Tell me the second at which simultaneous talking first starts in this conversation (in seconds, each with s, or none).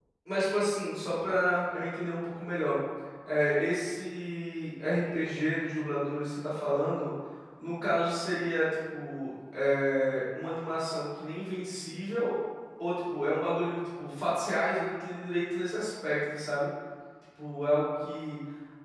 none